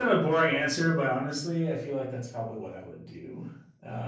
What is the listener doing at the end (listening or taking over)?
taking over